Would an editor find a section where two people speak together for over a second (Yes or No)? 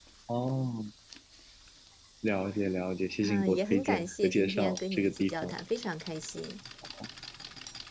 Yes